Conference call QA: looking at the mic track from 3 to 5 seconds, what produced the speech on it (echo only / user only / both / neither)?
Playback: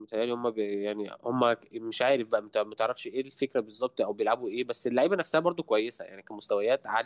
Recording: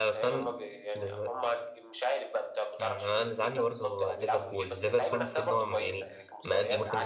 both